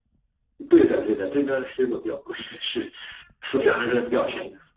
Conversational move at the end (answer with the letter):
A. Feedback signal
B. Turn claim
A